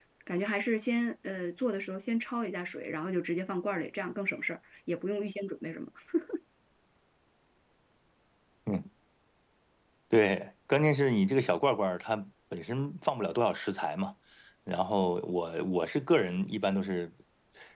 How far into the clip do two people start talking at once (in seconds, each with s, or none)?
none